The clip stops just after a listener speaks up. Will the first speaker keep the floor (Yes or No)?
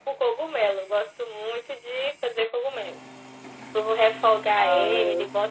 Yes